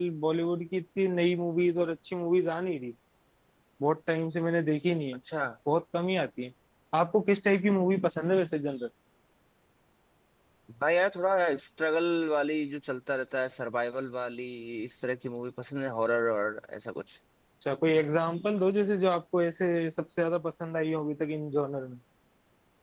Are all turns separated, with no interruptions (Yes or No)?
Yes